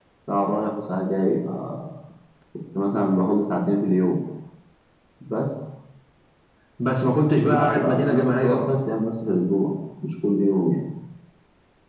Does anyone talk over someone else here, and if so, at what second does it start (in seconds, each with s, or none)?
7.4 s